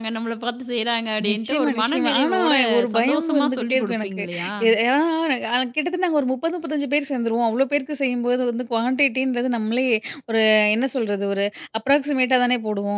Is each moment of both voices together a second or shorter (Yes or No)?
No